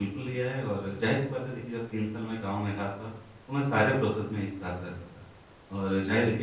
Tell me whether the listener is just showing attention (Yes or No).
Yes